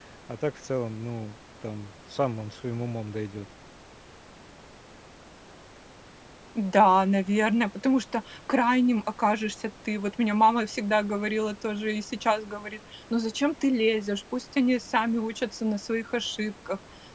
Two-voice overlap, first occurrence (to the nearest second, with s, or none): none